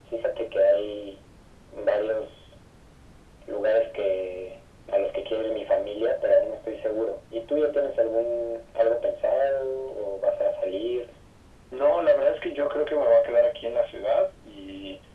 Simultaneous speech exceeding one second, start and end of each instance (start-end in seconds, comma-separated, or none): none